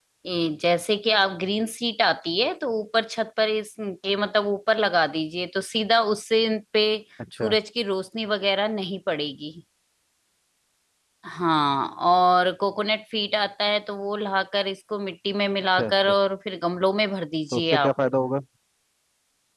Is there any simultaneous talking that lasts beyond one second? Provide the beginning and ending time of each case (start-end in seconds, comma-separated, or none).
none